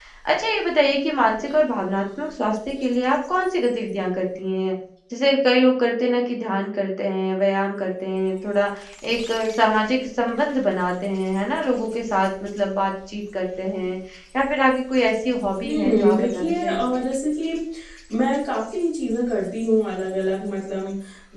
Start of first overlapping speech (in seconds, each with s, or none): 15.6 s